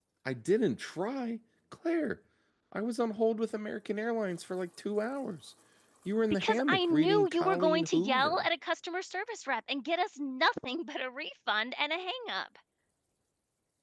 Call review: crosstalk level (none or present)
present